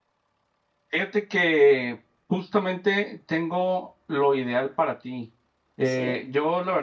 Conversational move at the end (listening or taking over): listening